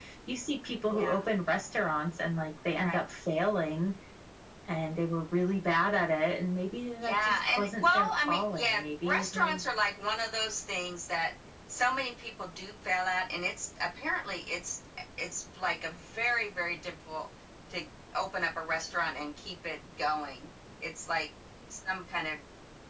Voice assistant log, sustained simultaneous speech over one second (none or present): present